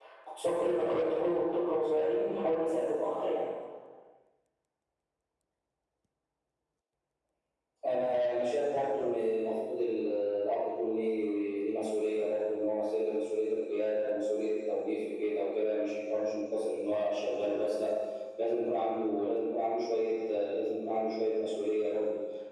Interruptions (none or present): none